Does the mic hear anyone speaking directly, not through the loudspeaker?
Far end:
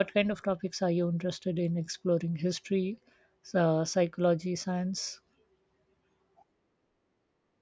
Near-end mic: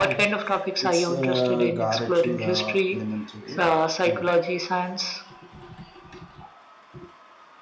Yes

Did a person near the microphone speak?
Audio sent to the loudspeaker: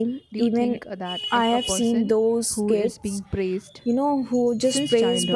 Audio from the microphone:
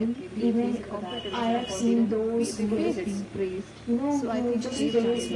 Yes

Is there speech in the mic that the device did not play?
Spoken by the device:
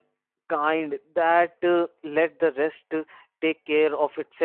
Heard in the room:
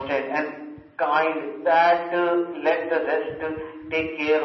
No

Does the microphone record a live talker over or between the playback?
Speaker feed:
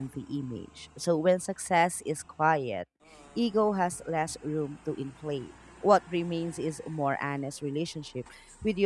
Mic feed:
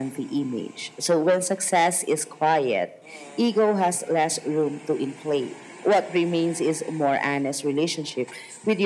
No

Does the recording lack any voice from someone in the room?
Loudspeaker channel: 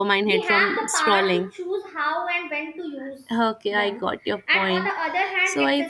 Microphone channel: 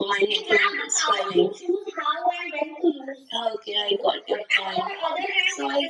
Yes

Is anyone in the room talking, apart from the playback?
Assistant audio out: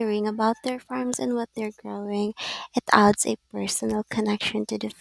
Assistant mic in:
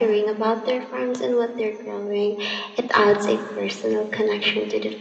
No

